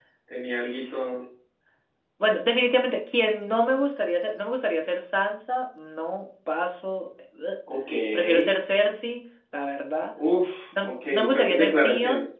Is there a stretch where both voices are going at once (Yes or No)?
Yes